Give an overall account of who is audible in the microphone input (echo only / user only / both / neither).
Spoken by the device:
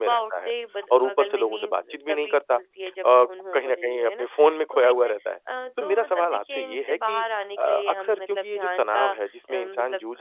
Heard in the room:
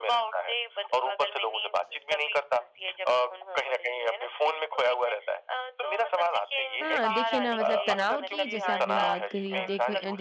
both